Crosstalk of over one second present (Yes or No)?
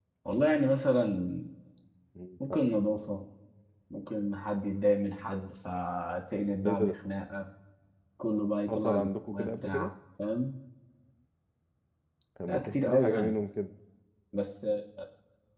Yes